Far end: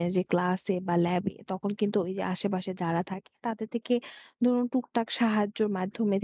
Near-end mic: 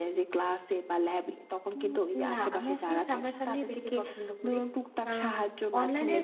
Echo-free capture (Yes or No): No